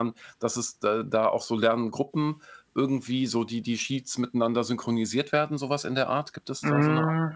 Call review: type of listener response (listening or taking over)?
taking over